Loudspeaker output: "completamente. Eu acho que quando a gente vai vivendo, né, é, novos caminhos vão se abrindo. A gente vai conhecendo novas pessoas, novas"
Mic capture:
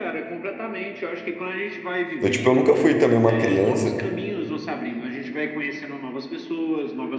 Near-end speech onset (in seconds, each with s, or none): 2.2 s